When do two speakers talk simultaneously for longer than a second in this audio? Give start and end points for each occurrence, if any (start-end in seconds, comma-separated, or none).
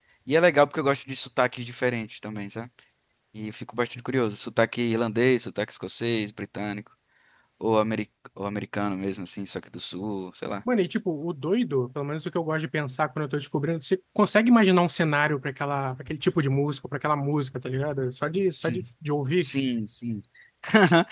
none